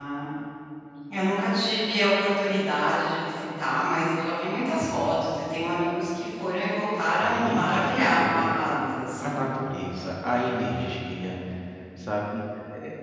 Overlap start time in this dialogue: 7.2 s

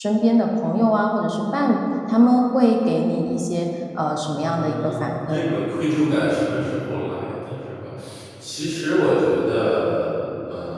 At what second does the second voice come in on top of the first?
4.4 s

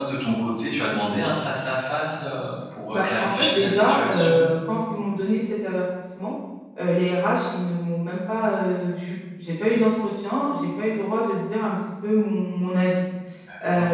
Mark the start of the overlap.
2.9 s

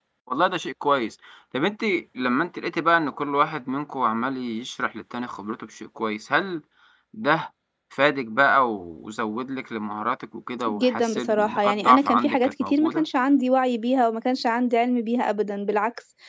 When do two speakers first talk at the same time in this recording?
10.7 s

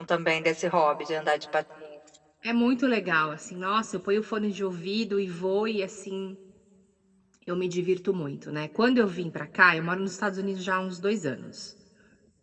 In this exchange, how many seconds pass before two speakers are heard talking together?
none

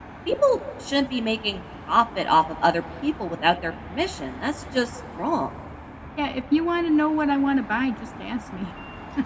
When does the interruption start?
none

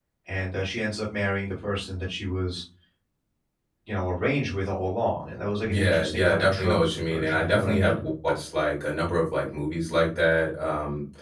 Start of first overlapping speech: 5.6 s

